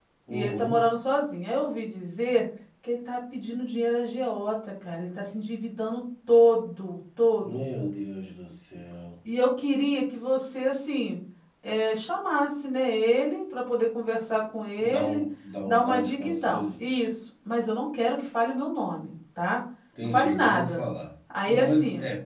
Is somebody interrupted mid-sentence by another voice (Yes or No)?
Yes